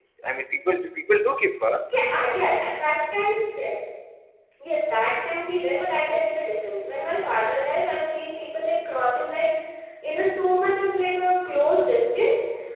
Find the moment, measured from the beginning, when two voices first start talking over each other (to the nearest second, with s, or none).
none